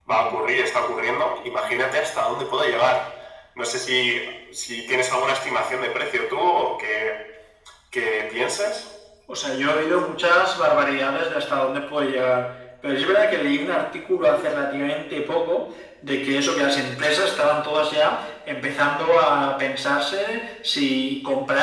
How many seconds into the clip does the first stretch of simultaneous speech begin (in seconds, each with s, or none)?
none